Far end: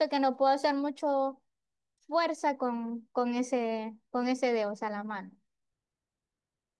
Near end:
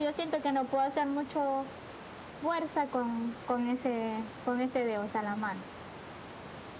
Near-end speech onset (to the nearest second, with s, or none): none